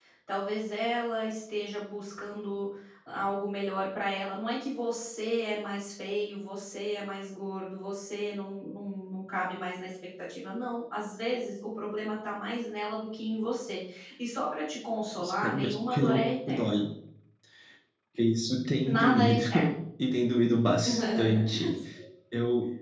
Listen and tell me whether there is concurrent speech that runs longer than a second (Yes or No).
Yes